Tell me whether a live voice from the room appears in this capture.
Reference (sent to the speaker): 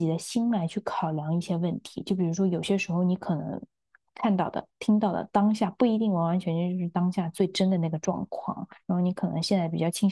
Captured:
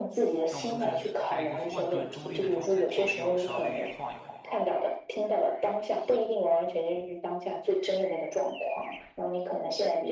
Yes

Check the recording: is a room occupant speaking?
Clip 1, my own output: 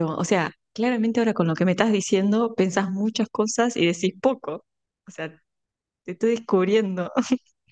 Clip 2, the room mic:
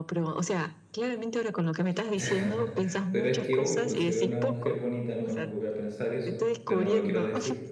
Yes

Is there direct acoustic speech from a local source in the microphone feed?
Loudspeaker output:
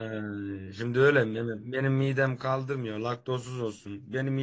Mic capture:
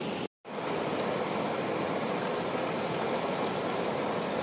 No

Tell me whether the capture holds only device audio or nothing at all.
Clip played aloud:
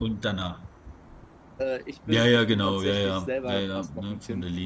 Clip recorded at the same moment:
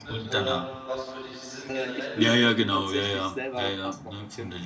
No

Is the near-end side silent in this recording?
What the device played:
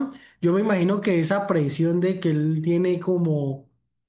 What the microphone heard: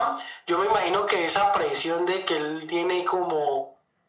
Yes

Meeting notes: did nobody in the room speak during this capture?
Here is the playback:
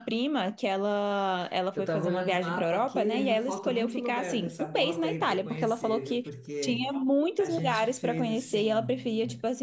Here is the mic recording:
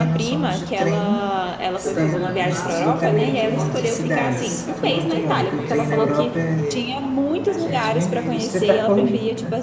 No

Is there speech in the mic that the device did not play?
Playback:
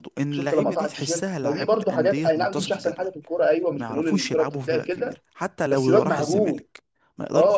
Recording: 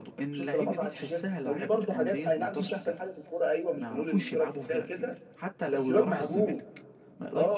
No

